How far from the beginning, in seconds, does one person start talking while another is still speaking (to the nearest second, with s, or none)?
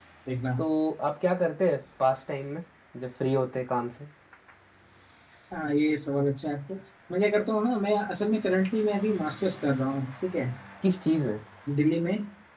none